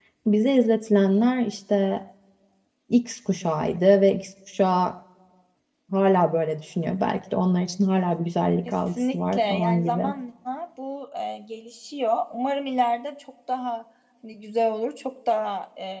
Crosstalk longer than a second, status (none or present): present